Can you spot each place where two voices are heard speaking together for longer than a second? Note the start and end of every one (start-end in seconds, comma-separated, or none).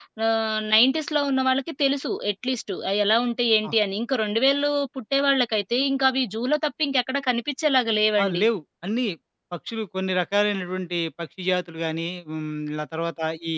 none